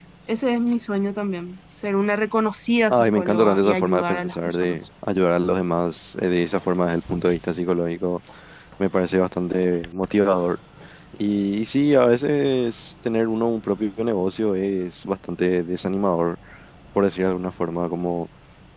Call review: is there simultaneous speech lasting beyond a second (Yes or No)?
Yes